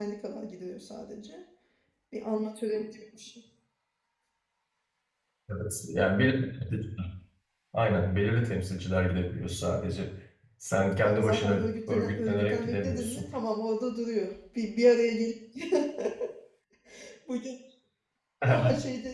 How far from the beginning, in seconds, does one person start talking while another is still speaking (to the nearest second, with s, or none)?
11 s